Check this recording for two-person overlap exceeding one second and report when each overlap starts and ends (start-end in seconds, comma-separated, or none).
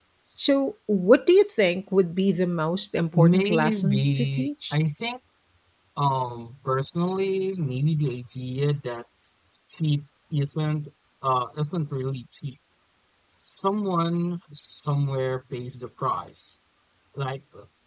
3.1-4.7